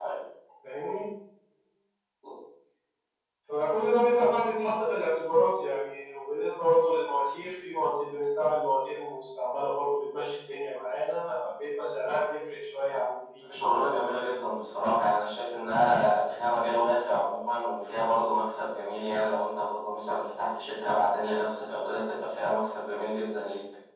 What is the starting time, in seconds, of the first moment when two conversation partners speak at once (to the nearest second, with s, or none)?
none